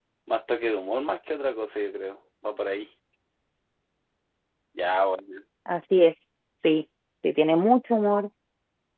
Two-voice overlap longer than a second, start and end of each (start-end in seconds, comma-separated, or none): none